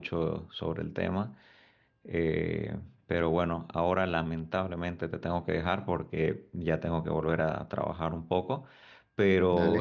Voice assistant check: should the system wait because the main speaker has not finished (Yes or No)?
Yes